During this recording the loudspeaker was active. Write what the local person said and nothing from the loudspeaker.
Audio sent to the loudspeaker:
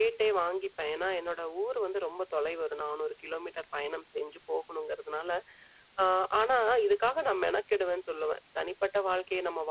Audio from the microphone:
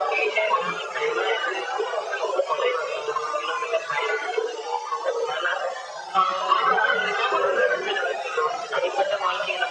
none

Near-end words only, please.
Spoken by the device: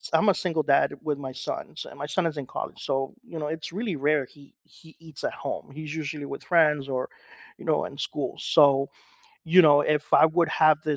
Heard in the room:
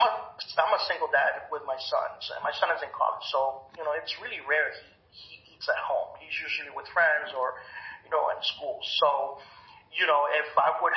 none

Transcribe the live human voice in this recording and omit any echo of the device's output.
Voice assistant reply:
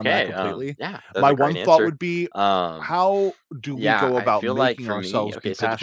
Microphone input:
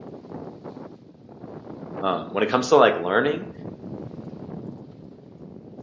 Um, when it comes to like learning,

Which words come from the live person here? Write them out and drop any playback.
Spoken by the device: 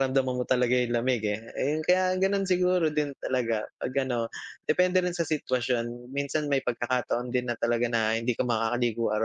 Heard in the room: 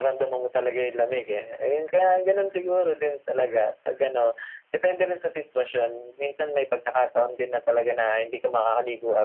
none

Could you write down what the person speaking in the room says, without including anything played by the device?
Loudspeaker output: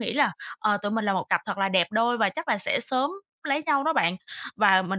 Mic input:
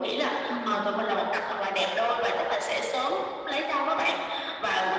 ừm.

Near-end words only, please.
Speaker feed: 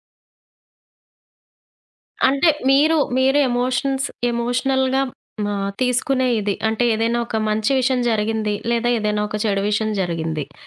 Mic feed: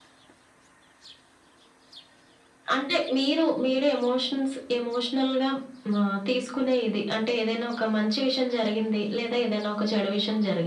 none

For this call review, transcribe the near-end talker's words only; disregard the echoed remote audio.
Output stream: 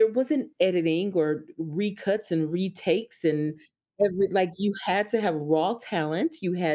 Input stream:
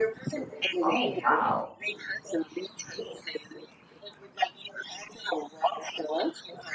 Oh, wow.

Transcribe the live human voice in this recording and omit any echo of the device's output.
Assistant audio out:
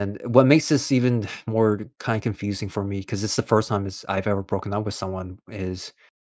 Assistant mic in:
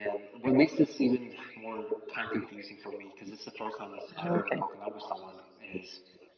Oh, okay.

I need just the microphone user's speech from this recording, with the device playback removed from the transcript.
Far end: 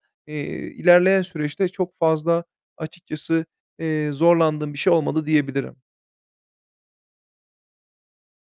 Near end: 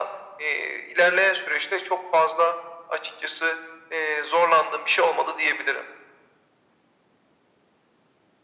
none

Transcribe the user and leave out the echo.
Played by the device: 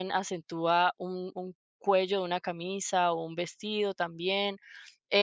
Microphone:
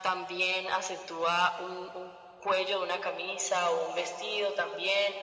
none

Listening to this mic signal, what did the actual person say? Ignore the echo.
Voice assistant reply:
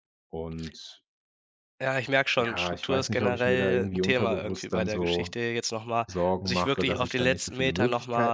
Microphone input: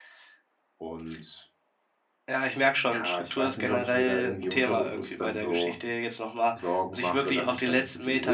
none

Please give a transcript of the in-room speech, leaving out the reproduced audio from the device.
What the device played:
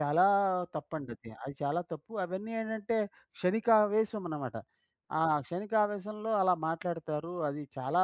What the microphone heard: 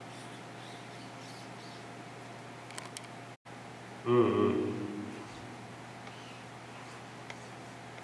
హ్మ్. హ్మ్.

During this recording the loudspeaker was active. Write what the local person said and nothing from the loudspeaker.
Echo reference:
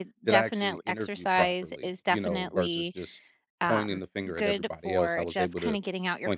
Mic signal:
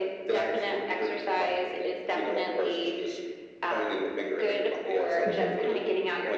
Mhm.

